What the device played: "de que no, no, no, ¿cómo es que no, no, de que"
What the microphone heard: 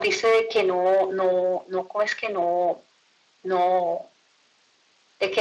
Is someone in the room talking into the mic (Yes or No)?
No